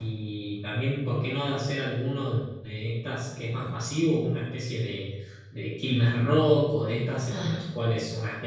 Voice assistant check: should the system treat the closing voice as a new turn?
No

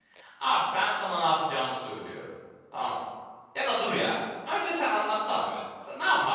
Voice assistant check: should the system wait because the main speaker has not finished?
No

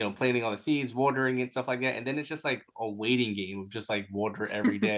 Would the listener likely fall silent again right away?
Yes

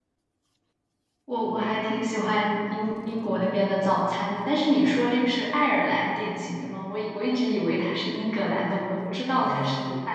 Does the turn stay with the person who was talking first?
No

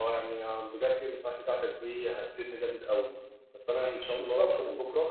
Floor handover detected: No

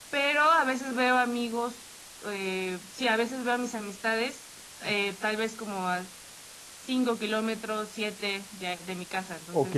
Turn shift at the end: Yes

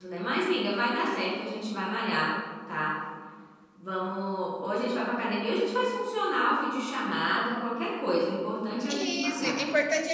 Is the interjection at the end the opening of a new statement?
Yes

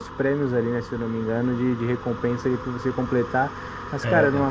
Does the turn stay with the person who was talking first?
Yes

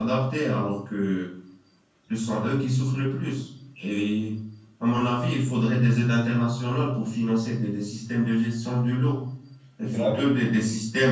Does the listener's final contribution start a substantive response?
No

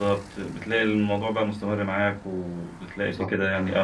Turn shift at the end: No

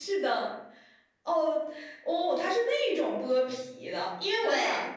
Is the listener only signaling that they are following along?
Yes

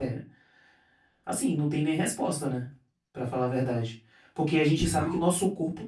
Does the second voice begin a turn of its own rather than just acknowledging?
No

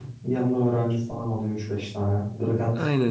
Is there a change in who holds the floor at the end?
Yes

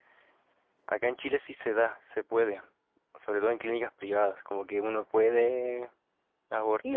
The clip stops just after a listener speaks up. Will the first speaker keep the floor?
No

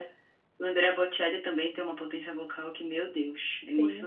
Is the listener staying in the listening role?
No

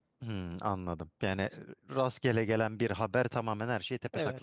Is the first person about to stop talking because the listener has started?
Yes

